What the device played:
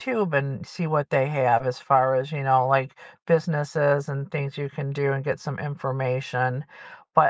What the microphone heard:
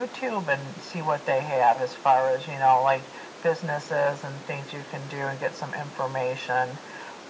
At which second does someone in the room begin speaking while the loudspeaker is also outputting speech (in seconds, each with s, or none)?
none